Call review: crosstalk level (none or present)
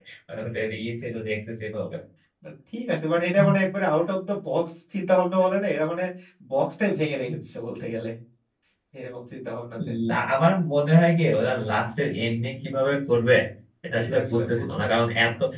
present